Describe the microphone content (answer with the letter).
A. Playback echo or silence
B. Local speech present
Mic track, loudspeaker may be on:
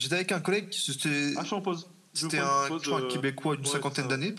A